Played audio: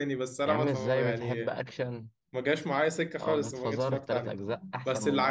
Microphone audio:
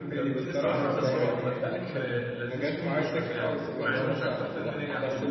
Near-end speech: present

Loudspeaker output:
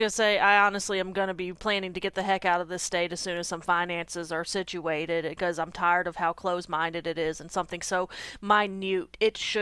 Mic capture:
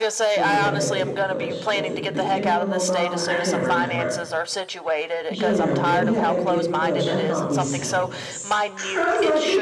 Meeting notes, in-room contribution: present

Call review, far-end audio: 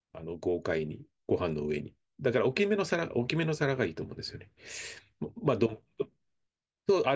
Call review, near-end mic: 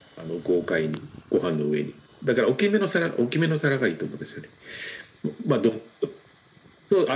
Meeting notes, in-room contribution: none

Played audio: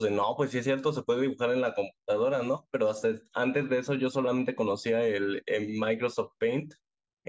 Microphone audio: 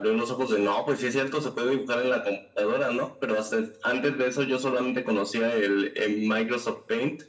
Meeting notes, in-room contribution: none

